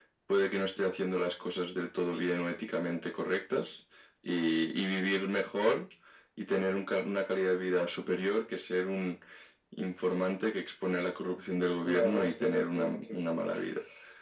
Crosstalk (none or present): present